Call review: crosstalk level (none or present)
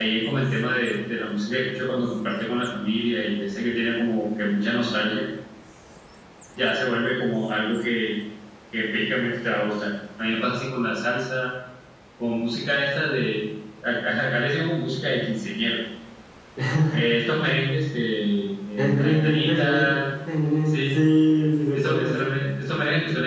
present